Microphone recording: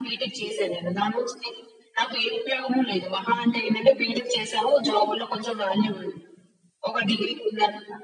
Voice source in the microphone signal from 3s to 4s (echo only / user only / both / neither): echo only